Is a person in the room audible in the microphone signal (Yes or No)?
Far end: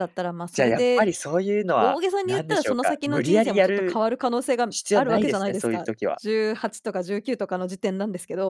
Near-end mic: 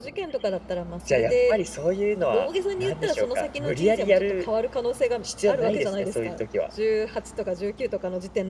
No